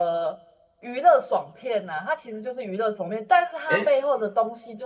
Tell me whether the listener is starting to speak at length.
No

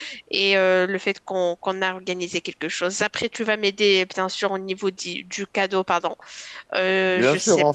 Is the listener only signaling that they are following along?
No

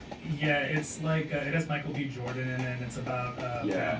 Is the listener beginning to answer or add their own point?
Yes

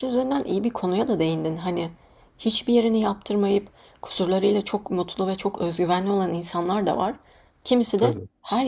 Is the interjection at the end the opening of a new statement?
No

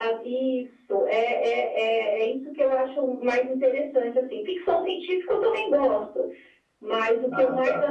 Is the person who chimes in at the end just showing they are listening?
Yes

